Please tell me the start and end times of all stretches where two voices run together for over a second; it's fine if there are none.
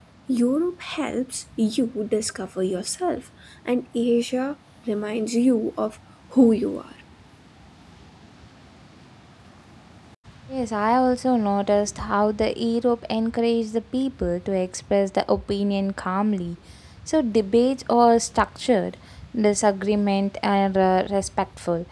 none

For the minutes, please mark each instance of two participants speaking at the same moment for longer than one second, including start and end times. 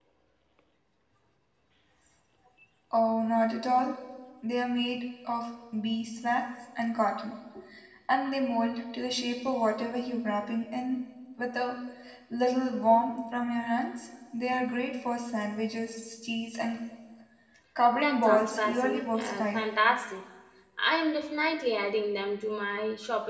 17.9-19.6

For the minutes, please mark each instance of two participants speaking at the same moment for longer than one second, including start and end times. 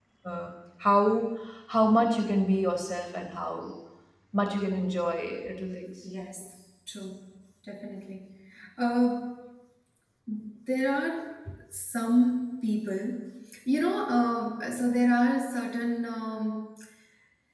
none

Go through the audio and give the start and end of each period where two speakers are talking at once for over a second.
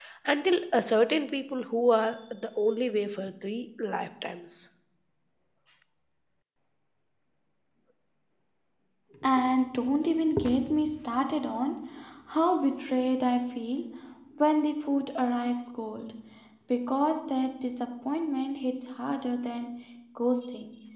none

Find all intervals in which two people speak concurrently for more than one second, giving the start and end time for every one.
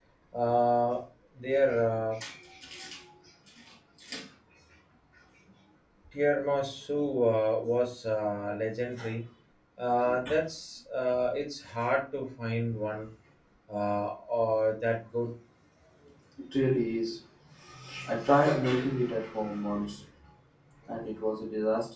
none

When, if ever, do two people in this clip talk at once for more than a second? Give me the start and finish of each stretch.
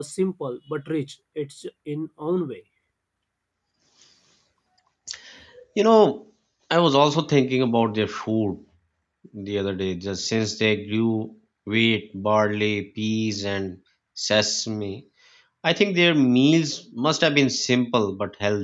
none

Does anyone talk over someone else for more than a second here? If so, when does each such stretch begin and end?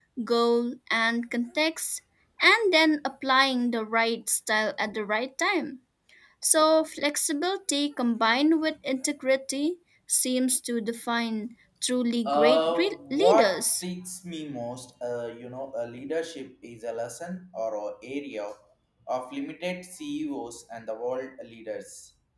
12.2-13.8

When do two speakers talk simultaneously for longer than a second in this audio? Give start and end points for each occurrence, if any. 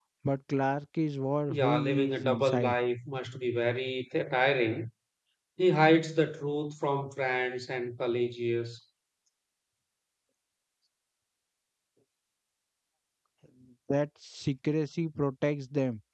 1.5-2.8

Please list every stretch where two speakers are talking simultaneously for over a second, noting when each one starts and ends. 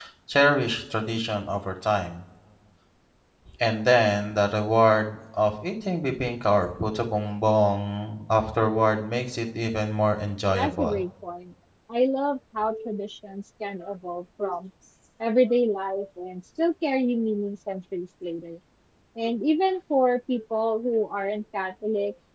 none

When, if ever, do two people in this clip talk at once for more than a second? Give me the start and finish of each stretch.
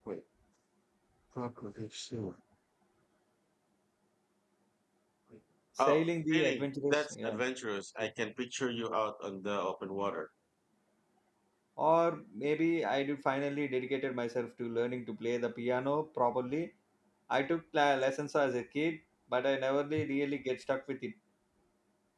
5.8-7.4

